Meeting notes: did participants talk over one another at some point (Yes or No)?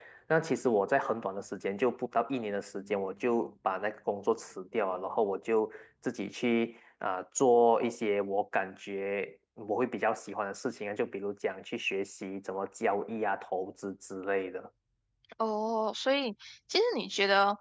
No